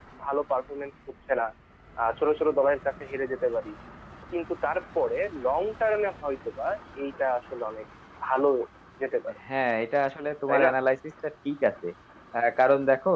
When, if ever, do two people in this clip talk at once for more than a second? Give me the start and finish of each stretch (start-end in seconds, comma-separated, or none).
none